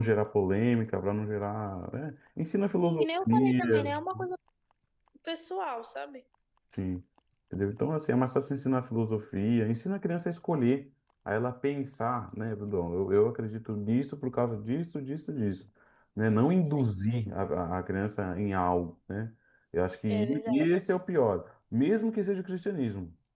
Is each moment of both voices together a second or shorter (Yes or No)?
No